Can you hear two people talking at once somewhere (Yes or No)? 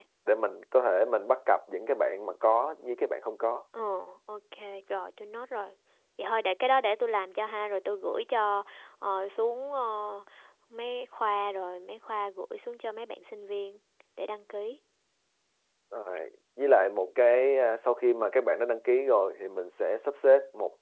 No